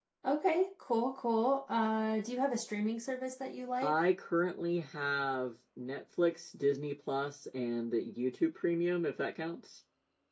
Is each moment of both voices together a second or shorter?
Yes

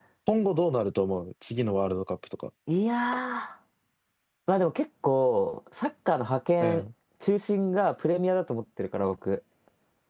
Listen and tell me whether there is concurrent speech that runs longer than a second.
No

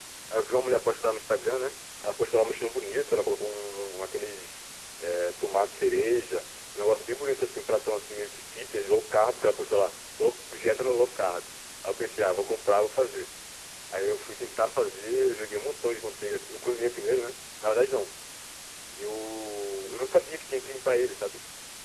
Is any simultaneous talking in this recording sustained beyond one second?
No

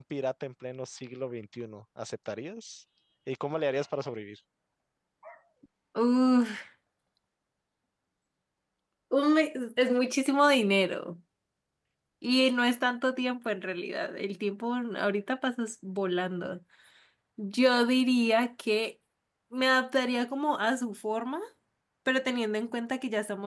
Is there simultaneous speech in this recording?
No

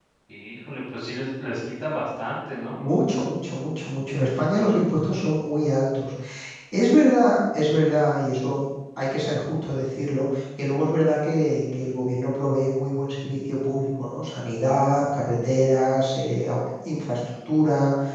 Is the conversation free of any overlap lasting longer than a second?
Yes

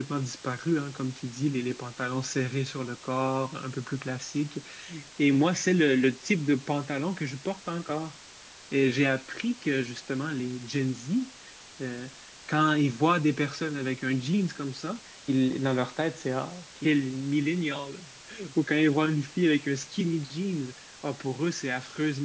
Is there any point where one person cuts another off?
No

